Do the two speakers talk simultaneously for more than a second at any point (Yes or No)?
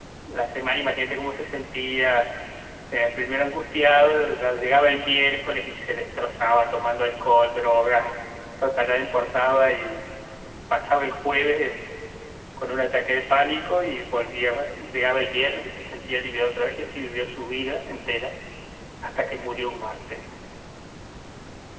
No